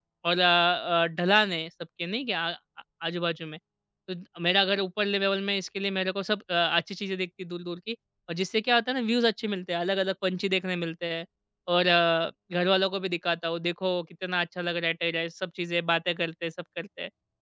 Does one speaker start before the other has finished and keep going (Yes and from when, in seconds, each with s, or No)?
No